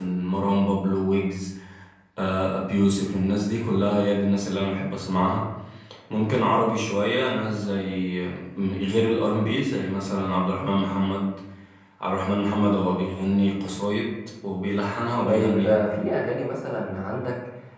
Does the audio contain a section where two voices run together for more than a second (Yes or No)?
No